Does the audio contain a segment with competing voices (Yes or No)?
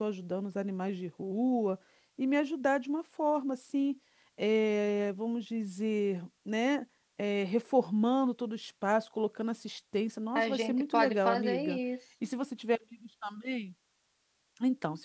Yes